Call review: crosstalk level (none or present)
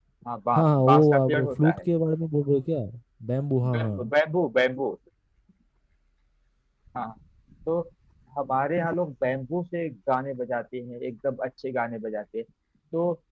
present